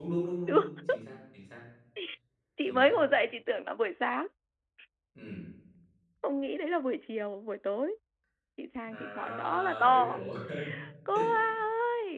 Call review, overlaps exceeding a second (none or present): present